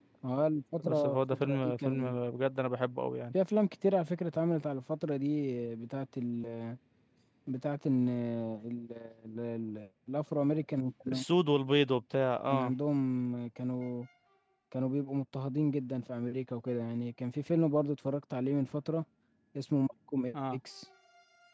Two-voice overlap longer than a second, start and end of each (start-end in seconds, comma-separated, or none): 0.8-2.2